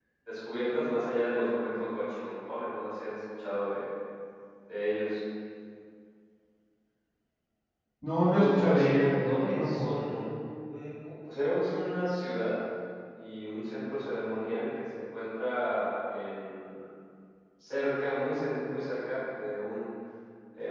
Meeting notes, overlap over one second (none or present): present